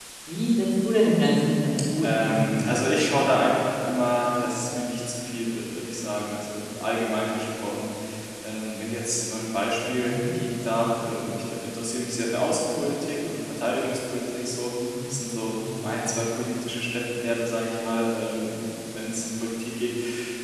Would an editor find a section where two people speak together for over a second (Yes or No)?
Yes